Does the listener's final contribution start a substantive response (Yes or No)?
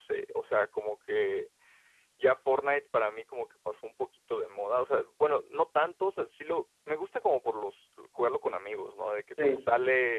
No